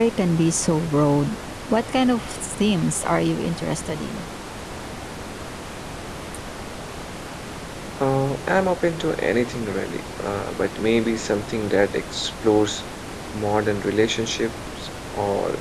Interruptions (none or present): none